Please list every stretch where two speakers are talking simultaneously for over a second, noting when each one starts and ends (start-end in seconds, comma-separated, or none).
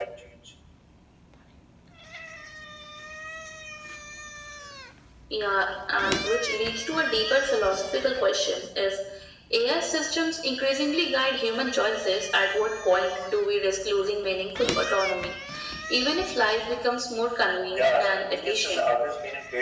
17.7-18.9